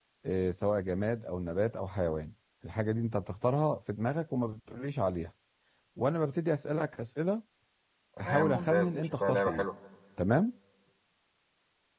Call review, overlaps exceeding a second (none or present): present